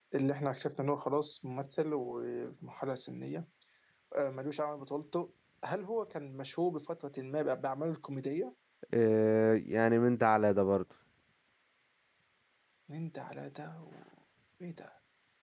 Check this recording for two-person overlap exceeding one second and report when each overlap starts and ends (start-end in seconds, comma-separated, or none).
none